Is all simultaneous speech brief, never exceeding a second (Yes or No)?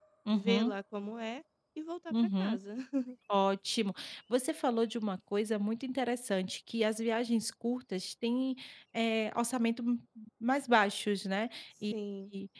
Yes